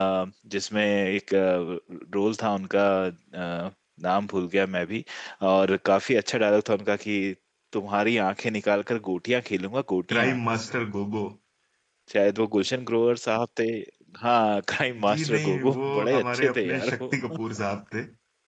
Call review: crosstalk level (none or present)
present